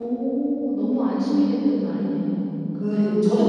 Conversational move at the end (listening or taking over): taking over